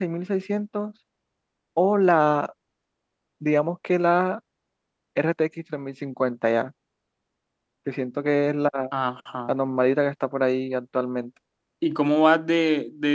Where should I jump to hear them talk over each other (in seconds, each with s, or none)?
none